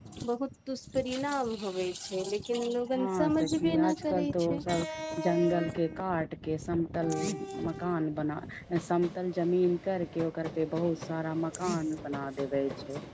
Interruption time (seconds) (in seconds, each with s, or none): 2.9 s